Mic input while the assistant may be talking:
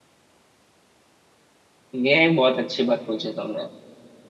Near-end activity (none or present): present